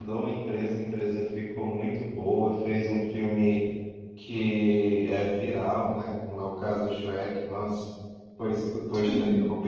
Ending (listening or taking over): listening